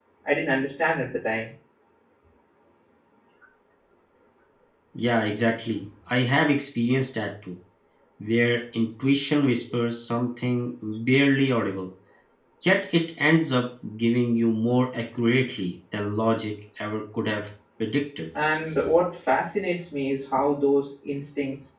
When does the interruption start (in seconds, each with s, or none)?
none